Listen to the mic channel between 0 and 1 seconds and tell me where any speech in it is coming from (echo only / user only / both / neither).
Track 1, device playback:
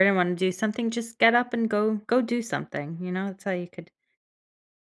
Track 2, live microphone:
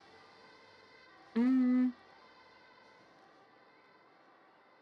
neither